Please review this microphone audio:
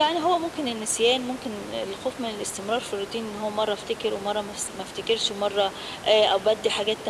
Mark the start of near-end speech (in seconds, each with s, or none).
none